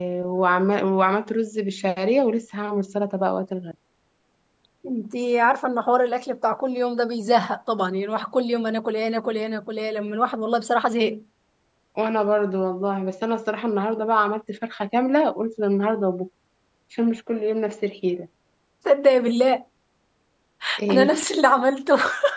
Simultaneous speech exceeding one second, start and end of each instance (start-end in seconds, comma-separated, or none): none